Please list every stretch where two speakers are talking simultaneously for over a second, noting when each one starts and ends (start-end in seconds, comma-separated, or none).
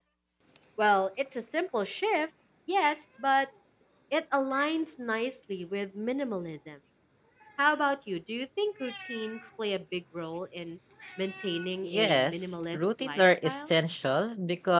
11.8-13.7